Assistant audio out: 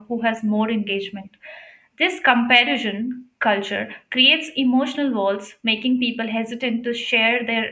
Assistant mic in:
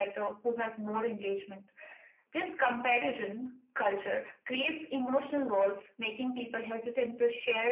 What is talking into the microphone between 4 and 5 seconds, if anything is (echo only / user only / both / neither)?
echo only